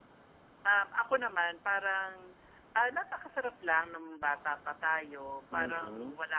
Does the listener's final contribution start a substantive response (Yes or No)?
No